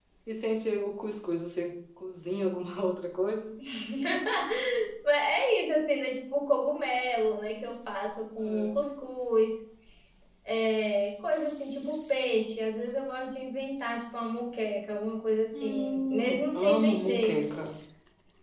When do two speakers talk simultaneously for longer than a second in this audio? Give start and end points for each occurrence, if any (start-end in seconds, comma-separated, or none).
15.5-17.4